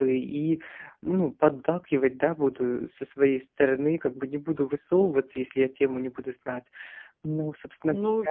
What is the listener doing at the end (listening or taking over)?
taking over